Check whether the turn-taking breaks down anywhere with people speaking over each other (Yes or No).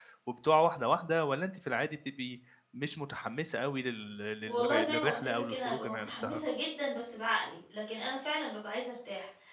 Yes